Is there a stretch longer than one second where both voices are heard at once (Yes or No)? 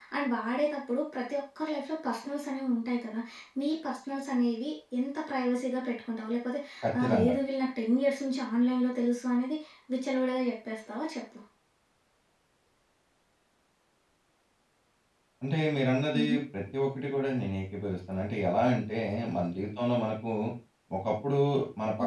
No